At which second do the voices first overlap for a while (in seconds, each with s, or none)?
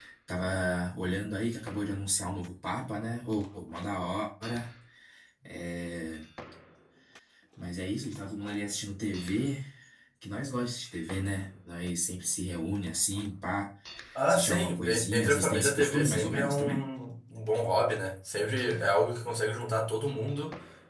14.3 s